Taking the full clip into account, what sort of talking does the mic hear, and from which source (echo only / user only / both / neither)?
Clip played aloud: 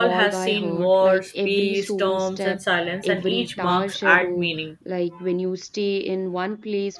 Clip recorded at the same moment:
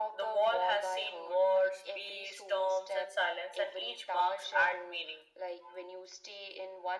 echo only